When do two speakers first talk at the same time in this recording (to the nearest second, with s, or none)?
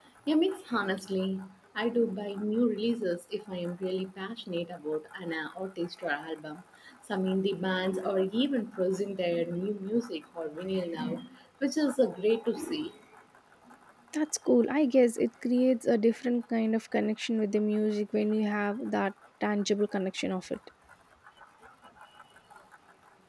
none